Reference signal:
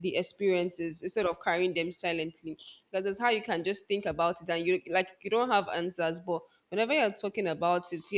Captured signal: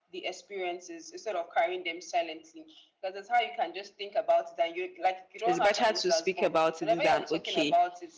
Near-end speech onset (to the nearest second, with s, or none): 5 s